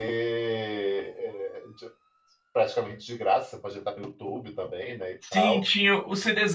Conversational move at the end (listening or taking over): taking over